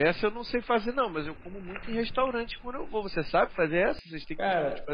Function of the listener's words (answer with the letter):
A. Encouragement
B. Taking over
B